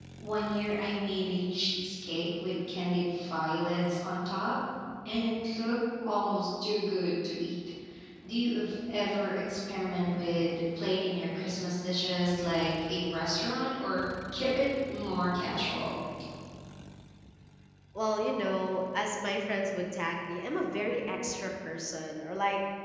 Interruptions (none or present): none